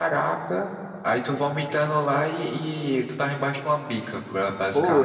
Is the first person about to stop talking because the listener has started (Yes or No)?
Yes